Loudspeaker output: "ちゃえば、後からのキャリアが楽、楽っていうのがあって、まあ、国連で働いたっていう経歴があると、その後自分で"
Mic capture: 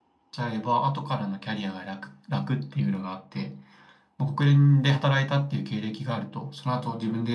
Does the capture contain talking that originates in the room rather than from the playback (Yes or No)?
No